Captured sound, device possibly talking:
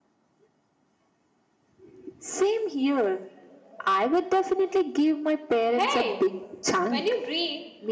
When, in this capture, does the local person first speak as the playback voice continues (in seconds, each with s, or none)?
5.7 s